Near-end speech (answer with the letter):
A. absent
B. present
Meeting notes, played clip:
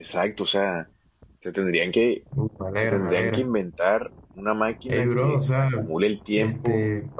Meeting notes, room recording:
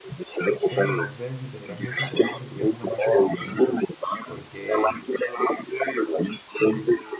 B